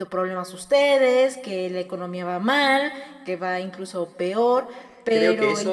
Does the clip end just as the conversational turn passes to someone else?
Yes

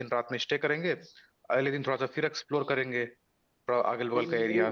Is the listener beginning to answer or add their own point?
Yes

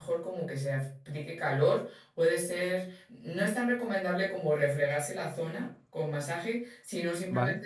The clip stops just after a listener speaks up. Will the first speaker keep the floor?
Yes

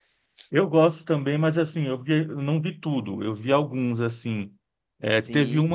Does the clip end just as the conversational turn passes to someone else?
No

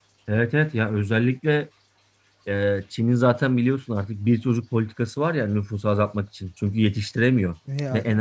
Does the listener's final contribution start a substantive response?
No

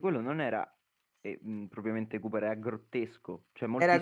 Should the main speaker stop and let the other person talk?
No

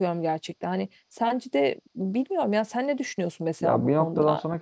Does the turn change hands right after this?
Yes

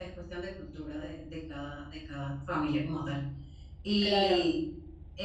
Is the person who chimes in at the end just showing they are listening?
Yes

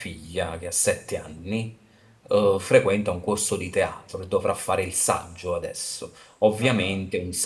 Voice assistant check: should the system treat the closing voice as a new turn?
No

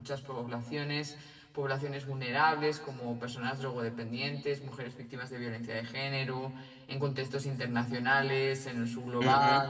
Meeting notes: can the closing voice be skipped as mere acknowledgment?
Yes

